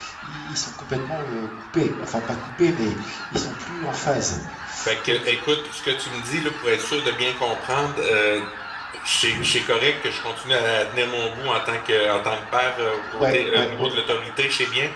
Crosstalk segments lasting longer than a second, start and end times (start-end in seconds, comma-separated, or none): 12.6-13.8